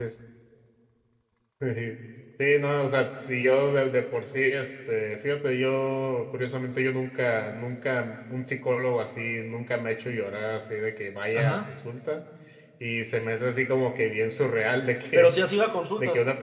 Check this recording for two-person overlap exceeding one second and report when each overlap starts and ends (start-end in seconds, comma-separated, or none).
none